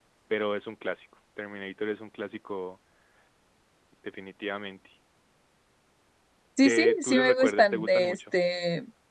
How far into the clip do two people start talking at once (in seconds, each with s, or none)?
6.6 s